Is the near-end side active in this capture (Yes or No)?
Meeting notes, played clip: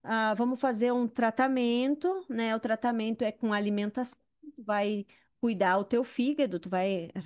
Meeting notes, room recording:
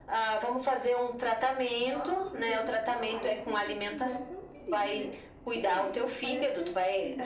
Yes